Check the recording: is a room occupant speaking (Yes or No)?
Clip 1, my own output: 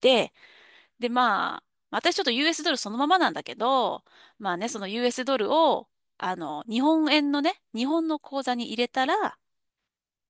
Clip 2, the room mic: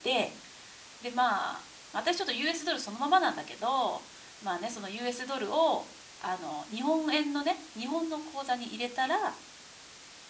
No